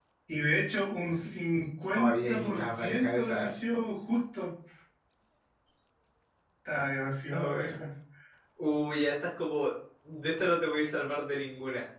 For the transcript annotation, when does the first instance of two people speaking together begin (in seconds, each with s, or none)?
1.9 s